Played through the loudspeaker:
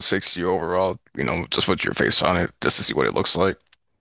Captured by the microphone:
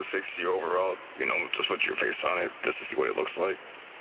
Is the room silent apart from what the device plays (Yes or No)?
Yes